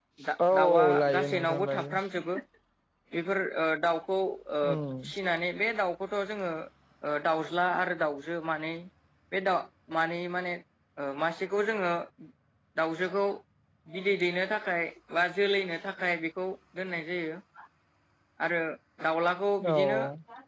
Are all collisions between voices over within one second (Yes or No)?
No